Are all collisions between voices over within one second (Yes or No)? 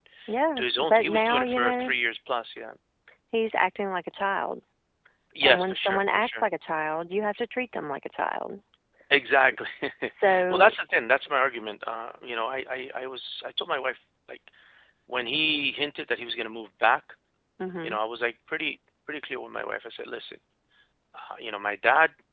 No